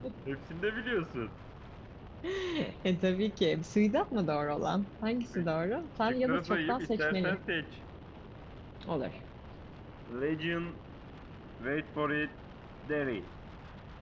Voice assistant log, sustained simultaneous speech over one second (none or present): present